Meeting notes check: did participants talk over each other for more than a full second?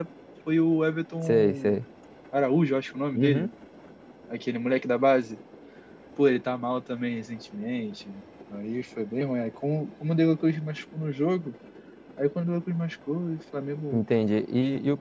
No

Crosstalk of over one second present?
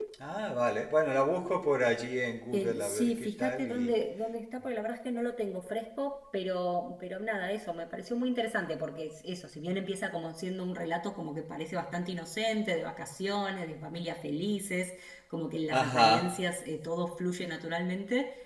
Yes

